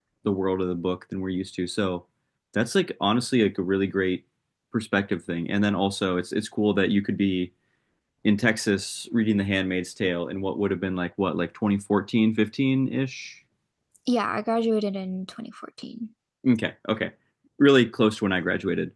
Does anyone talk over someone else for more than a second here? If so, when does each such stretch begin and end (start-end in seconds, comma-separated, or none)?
none